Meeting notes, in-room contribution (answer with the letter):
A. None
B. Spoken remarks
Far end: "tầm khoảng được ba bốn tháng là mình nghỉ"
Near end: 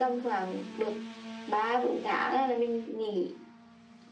A